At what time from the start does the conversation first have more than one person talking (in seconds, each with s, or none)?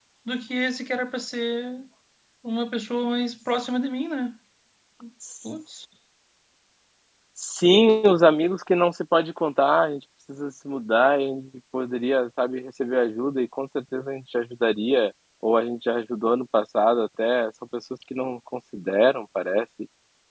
none